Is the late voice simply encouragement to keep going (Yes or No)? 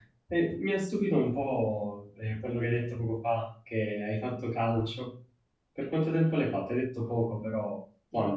No